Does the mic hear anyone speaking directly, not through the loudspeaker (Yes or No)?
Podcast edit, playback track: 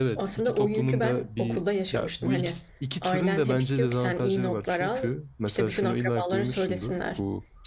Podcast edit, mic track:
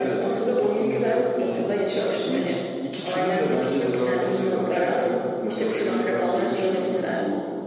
No